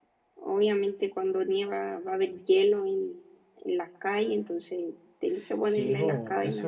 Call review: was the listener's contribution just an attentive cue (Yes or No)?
No